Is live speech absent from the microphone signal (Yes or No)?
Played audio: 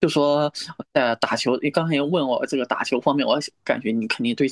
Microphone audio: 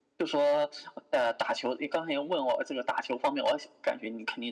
Yes